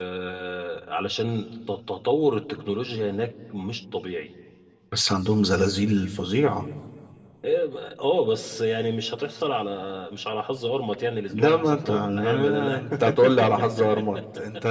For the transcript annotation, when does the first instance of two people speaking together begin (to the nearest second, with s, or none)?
11 s